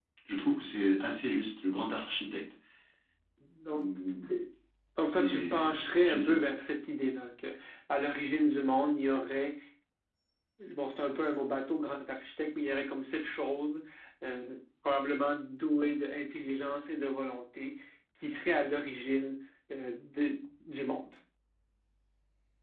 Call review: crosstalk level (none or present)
present